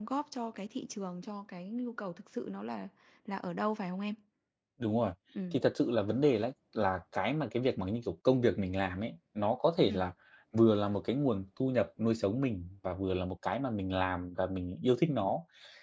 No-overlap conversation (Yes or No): Yes